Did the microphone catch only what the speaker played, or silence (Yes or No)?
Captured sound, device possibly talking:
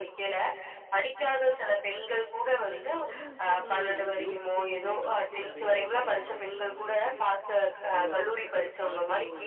No